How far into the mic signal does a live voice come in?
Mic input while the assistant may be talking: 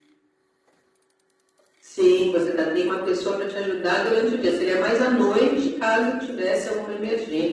none

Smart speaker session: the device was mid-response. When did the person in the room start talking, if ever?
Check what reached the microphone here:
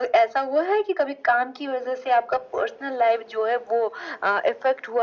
none

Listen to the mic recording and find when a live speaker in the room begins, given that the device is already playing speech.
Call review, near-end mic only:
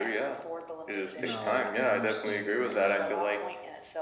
1.1 s

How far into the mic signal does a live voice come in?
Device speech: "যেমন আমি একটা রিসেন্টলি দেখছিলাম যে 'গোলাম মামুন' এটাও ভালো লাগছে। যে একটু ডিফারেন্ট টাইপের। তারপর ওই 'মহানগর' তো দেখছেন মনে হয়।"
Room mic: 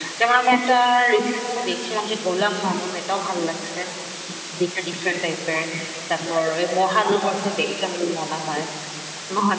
none

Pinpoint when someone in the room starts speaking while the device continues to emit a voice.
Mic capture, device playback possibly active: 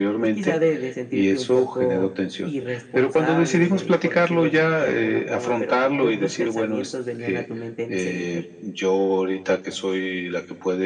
none

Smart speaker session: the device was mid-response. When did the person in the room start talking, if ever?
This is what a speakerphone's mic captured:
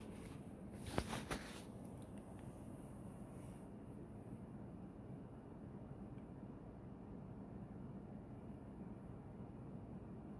none

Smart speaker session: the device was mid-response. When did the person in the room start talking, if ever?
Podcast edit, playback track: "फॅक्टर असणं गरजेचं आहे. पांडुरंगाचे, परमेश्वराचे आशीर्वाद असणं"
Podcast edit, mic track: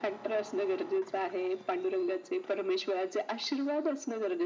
none

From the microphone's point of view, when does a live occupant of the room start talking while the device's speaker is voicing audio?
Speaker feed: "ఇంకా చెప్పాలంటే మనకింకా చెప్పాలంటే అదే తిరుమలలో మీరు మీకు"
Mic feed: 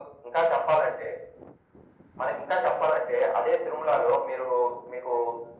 none

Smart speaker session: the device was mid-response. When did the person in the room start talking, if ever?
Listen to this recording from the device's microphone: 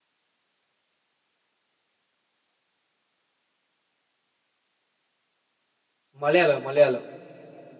6.2 s

